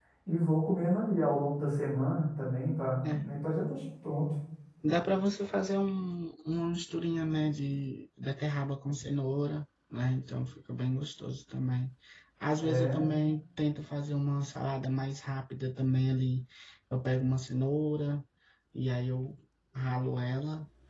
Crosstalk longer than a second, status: none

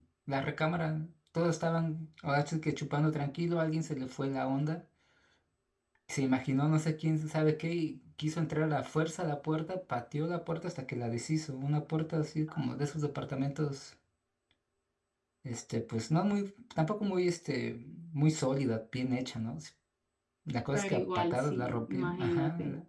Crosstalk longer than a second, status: present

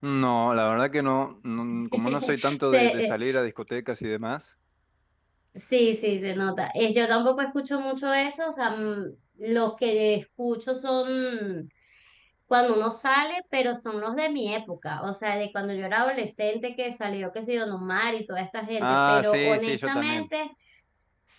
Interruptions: present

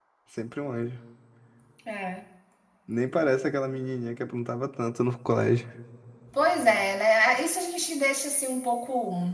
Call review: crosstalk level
none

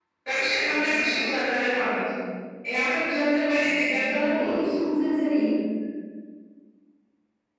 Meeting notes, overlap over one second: present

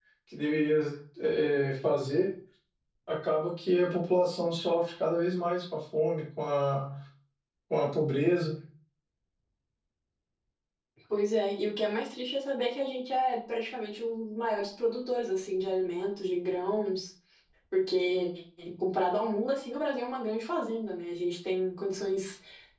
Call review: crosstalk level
none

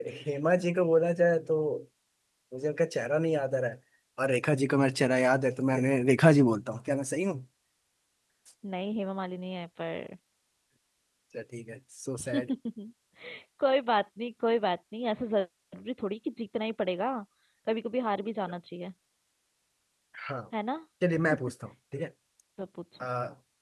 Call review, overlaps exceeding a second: none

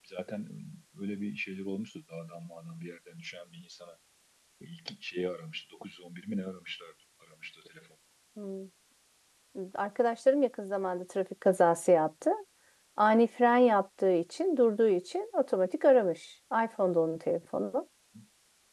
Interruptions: none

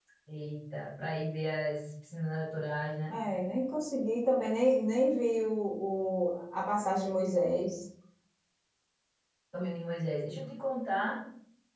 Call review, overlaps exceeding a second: none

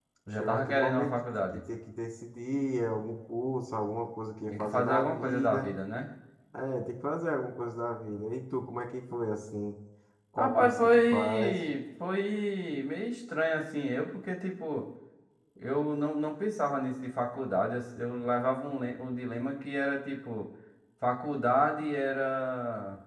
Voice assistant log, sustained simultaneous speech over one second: present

